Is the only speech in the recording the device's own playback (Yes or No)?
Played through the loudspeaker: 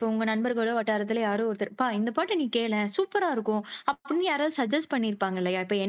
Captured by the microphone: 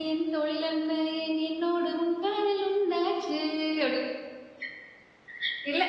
No